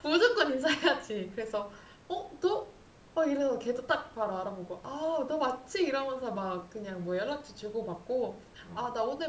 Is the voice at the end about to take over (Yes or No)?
No